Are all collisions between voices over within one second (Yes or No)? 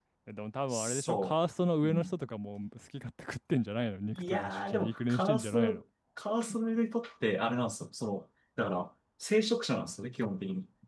No